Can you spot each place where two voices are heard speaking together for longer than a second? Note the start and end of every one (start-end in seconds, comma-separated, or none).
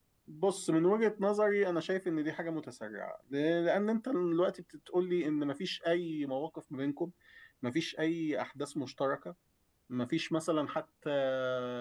none